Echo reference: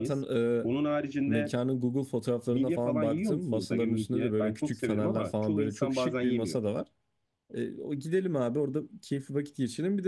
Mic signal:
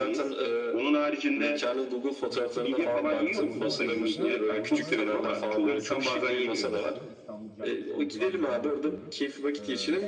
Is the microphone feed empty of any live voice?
No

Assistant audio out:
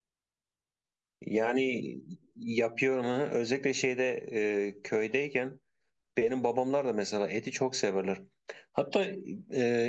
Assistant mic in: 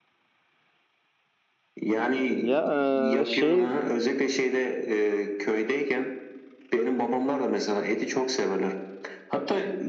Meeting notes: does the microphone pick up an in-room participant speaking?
Yes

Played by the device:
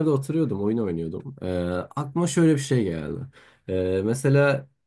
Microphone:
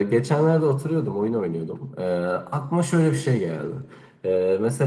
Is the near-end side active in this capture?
No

